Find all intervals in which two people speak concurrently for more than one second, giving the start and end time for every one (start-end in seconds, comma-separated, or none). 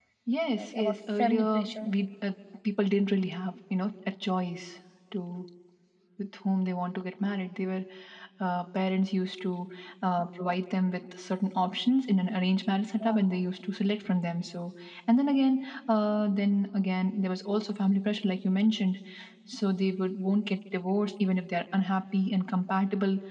0.6-1.9